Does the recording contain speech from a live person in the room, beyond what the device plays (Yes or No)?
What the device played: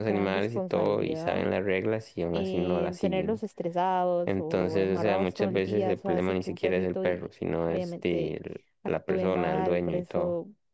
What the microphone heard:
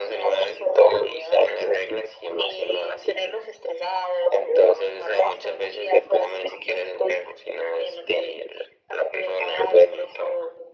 No